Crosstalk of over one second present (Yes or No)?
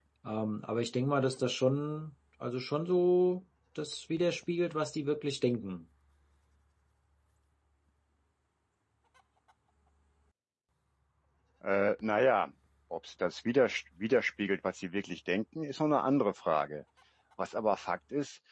No